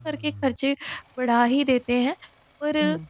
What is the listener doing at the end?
listening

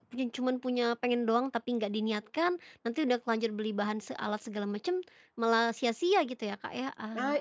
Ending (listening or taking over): taking over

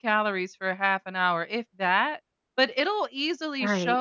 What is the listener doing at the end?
listening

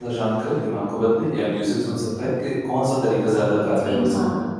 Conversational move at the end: taking over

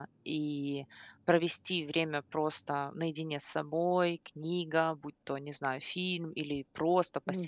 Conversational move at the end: listening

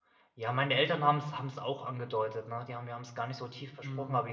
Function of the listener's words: listening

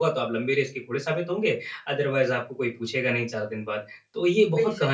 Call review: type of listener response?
taking over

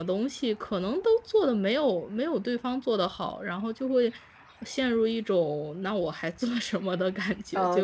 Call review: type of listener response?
taking over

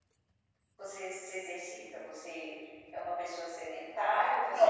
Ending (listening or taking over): taking over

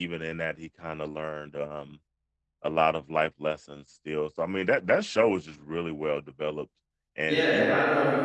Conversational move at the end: taking over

